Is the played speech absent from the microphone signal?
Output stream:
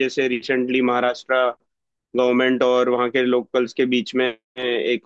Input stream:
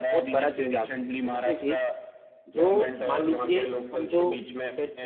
No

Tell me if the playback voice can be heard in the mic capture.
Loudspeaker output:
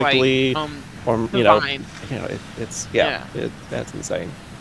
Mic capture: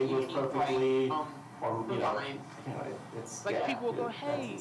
Yes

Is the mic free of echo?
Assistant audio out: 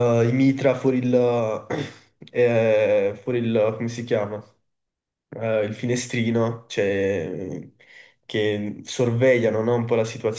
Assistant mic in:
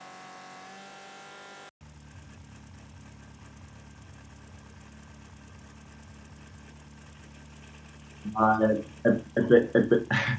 Yes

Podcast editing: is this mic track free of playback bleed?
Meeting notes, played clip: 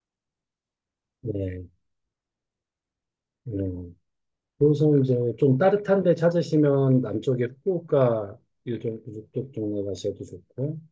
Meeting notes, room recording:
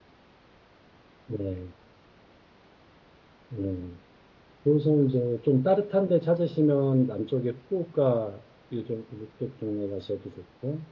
No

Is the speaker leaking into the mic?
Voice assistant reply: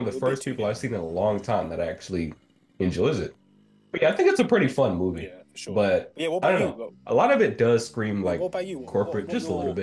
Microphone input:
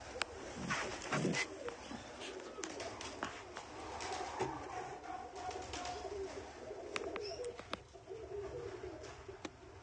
No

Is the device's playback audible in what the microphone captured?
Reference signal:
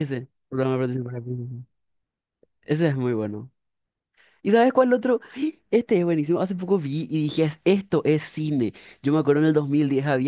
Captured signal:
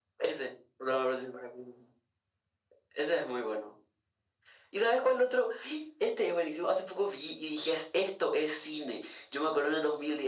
Yes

